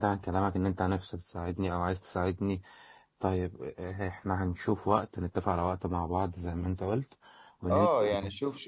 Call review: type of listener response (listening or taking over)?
taking over